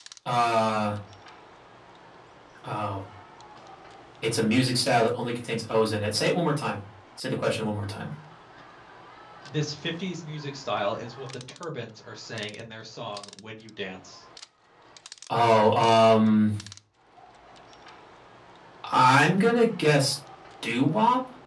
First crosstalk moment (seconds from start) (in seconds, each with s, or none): none